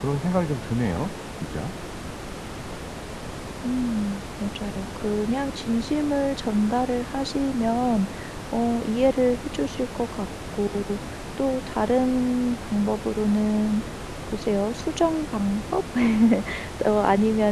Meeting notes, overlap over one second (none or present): none